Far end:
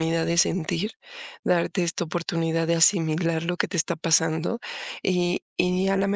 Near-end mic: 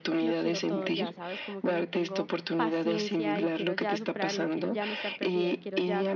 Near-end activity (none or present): present